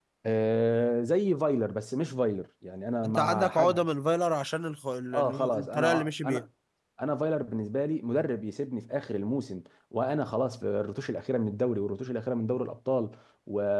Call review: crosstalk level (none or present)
present